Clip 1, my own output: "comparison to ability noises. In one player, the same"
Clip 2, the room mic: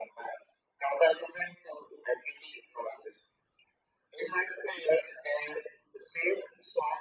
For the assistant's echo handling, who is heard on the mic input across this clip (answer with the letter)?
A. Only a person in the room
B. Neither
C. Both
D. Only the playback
D